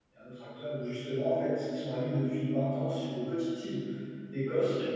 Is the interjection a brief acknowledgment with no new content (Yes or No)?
Yes